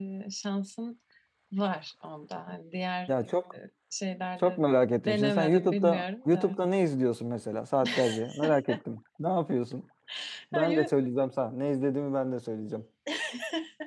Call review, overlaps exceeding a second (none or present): present